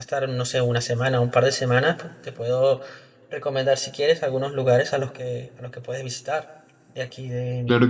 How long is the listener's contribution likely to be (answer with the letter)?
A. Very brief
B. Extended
B